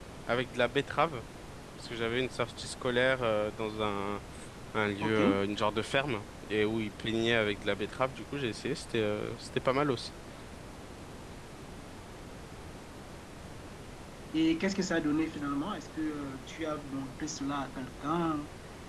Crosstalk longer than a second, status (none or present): none